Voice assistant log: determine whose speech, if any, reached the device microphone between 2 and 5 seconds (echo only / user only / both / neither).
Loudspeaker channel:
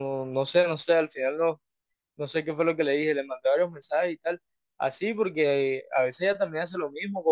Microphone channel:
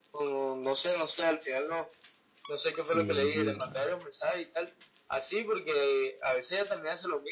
both